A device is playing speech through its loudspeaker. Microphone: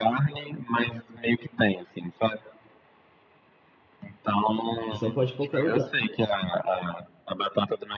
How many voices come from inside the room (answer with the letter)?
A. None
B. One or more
B